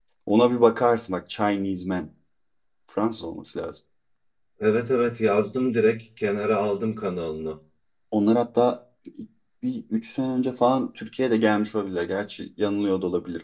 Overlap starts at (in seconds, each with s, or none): none